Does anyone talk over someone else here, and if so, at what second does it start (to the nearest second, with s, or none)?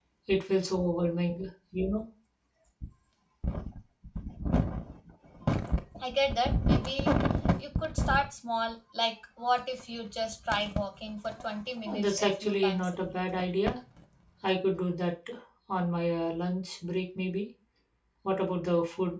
12 s